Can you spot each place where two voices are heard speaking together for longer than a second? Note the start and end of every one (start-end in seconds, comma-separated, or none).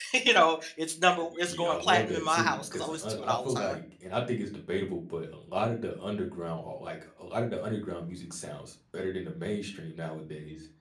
1.5-3.8